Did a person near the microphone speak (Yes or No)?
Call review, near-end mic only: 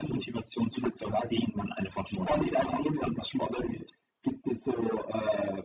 No